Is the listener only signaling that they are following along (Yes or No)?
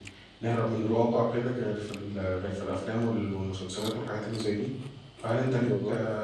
Yes